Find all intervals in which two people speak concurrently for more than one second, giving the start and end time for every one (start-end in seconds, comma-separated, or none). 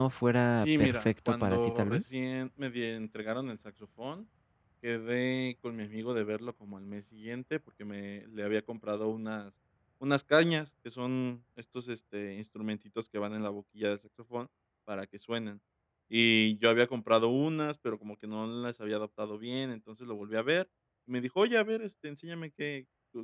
0.5-2.0